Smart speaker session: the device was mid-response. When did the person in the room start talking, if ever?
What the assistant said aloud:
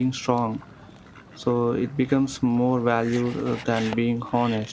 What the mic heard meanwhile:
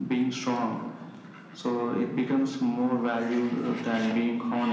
none

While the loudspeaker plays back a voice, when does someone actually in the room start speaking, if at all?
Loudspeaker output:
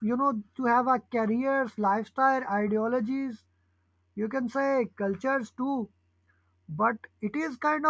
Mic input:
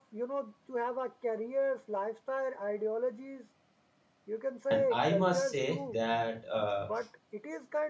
4.7 s

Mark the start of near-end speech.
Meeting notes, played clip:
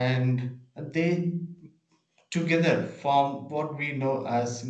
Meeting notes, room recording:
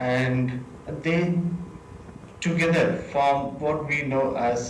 none

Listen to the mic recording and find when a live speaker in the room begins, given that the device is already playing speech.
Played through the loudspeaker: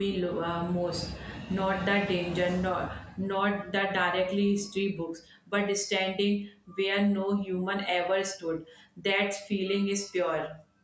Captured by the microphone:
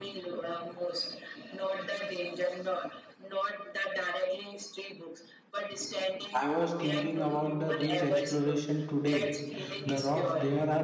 6.3 s

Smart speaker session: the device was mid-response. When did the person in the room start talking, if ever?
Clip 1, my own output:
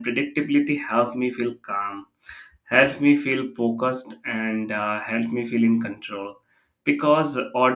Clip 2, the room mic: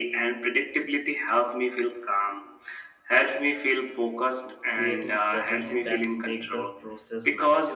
4.7 s

